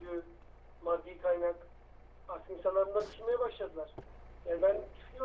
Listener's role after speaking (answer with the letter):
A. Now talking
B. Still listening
B